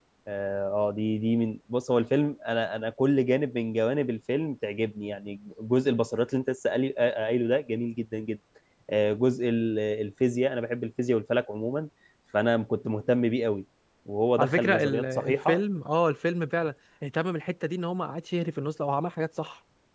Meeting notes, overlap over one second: present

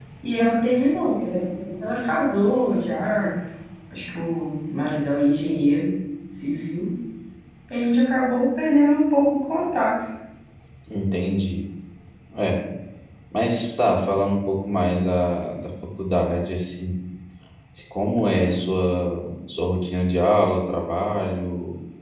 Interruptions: none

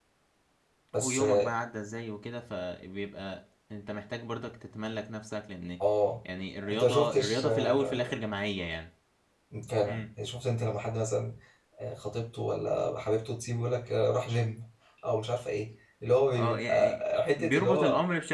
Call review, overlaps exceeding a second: present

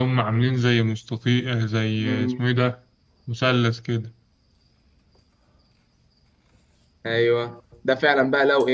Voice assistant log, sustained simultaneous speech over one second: none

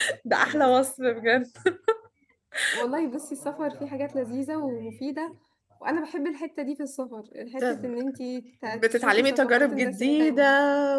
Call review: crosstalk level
present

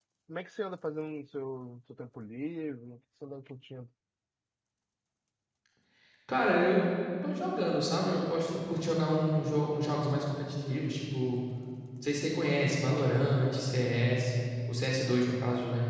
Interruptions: none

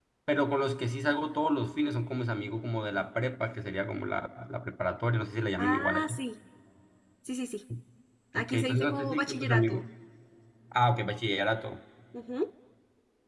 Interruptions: present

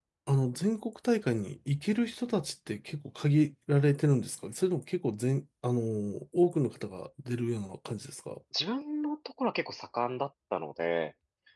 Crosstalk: none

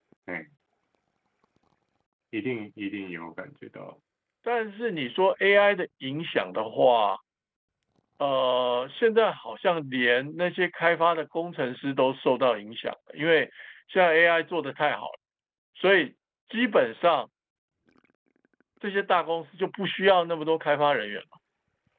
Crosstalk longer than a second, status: none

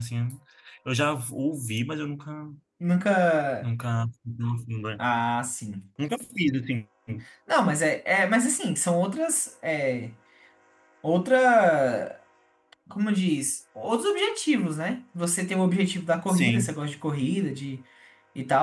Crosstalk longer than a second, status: none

